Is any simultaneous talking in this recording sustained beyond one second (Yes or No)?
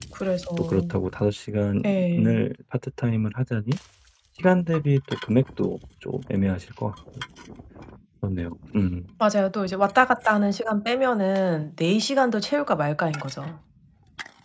No